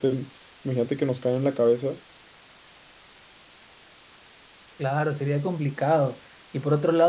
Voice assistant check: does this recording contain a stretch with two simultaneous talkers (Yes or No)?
No